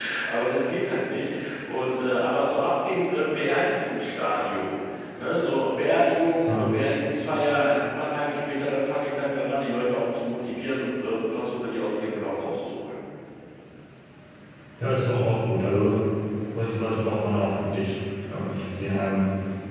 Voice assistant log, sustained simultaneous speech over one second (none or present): none